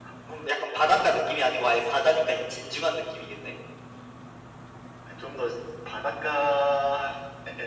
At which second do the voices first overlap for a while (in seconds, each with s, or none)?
none